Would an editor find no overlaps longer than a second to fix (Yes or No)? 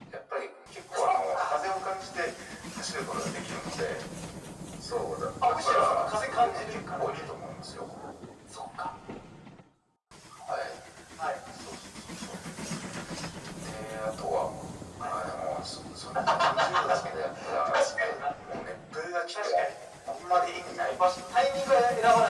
No